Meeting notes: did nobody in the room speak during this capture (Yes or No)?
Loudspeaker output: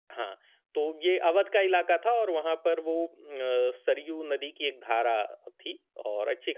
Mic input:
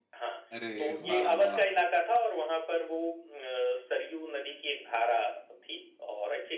No